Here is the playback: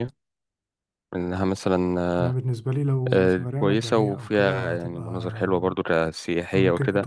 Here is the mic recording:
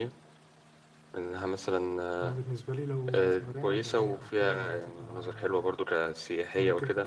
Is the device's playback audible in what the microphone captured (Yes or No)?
Yes